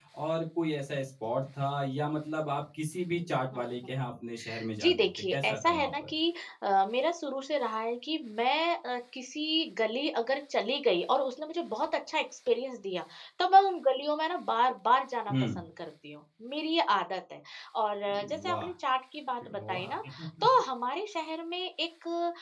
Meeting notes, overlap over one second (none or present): present